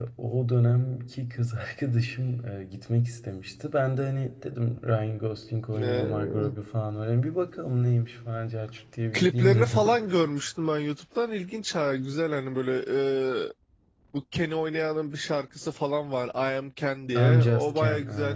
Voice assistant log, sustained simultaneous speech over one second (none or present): present